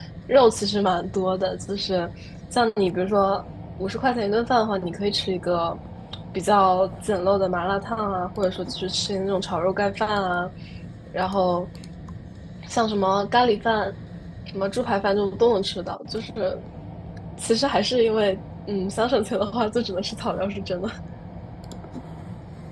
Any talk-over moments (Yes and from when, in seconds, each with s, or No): No